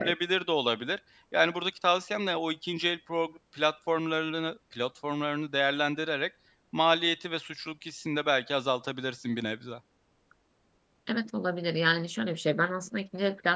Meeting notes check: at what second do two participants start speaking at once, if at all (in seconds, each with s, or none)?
none